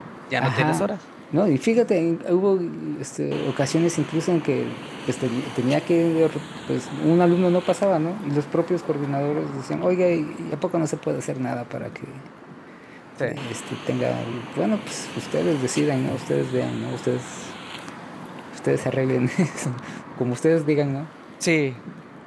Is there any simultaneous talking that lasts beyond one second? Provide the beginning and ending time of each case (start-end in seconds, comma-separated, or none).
none